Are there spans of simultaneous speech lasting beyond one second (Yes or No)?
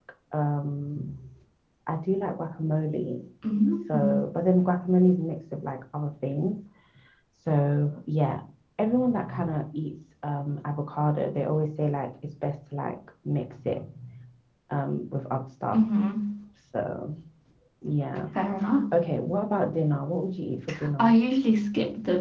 No